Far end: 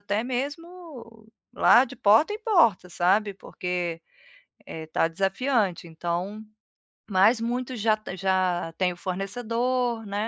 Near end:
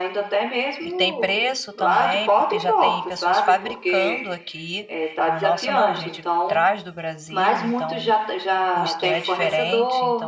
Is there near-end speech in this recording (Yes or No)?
Yes